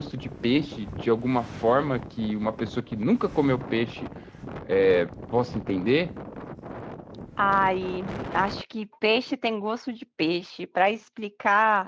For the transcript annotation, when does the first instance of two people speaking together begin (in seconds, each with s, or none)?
none